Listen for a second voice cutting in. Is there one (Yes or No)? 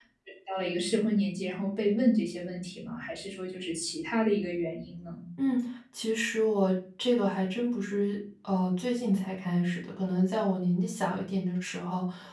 No